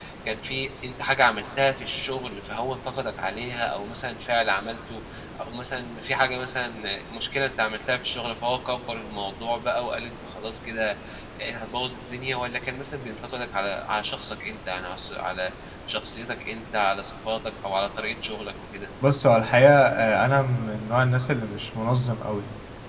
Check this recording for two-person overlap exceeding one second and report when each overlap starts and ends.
none

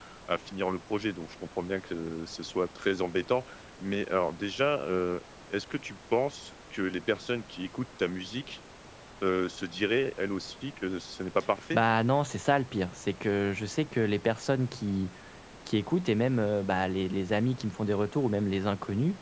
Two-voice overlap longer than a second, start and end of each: none

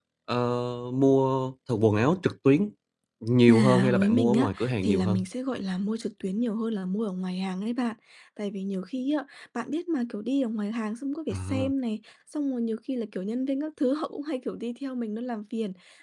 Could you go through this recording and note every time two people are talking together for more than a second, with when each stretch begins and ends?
3.5-5.2

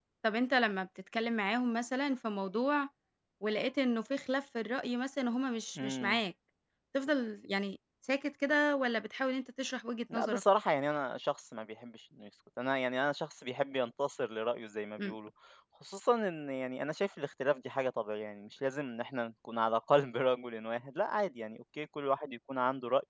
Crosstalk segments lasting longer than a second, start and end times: none

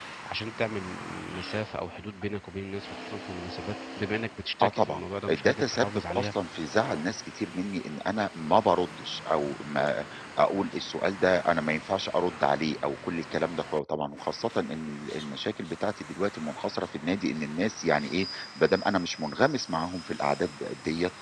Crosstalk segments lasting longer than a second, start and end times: 4.6-6.3

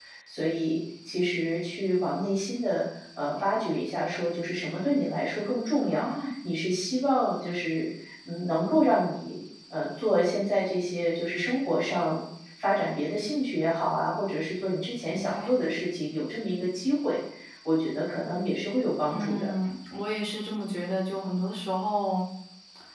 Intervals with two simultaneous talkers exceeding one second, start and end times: none

